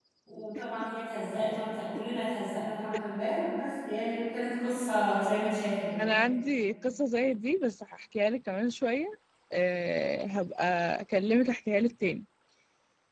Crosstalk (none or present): none